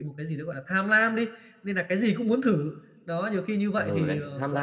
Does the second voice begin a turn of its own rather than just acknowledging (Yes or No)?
Yes